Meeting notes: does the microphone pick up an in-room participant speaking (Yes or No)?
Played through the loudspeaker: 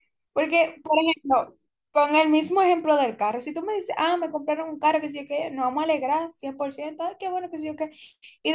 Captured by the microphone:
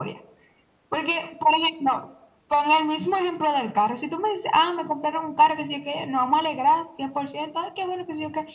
No